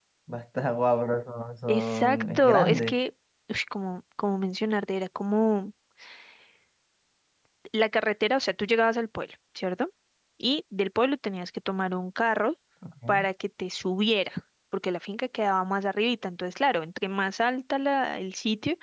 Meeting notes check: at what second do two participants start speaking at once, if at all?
1.7 s

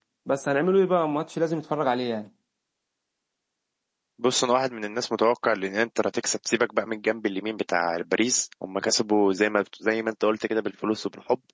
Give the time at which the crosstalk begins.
none

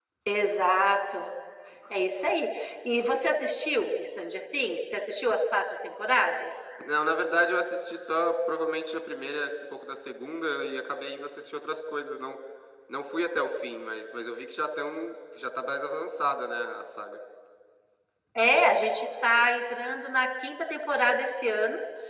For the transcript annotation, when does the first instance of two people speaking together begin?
none

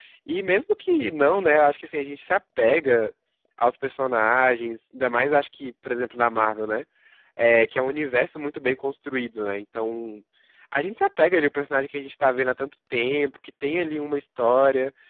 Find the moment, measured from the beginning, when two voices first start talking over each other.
none

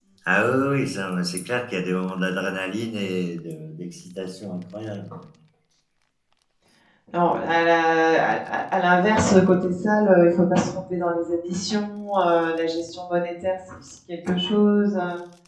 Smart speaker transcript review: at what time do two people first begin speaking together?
none

